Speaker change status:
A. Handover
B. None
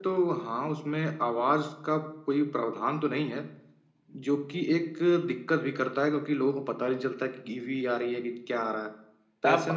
A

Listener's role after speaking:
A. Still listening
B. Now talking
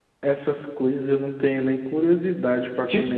B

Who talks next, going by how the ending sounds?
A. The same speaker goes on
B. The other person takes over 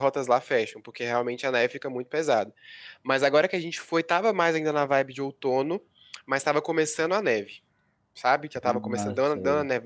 A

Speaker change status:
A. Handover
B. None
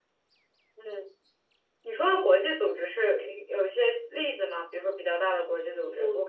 A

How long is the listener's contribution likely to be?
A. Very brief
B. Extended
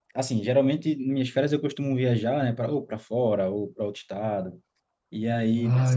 A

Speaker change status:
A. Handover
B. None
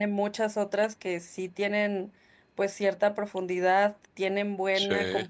B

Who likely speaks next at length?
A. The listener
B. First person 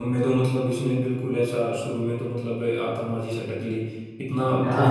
B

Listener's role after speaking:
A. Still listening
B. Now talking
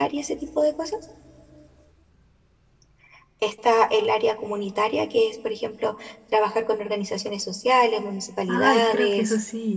B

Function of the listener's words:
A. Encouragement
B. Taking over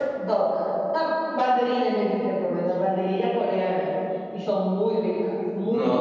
B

